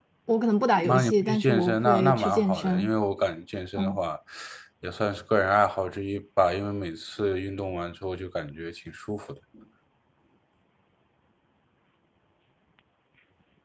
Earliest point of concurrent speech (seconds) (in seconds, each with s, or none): 0.8 s